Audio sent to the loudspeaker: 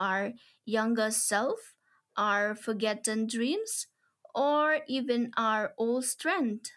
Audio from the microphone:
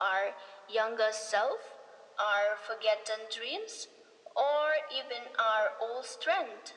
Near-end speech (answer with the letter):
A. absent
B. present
A